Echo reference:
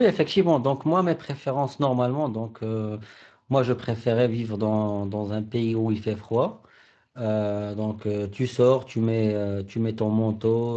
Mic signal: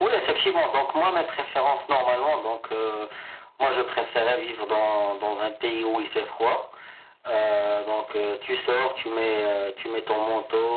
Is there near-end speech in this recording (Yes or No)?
No